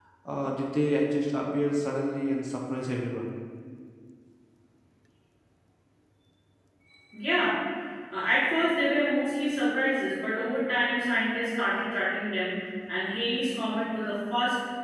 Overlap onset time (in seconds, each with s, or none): none